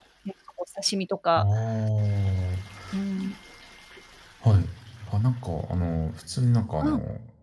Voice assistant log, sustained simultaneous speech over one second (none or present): none